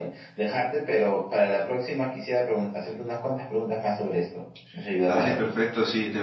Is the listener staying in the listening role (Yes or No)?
No